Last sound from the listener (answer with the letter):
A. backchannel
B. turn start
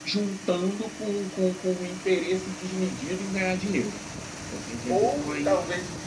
B